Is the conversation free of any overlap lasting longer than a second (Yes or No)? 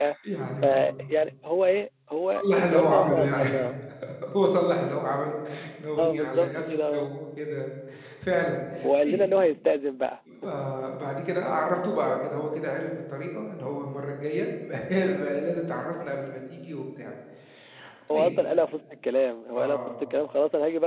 No